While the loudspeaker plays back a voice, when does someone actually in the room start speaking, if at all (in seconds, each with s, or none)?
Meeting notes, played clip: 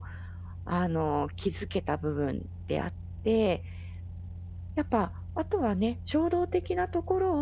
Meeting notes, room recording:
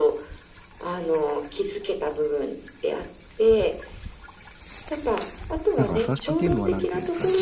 5.8 s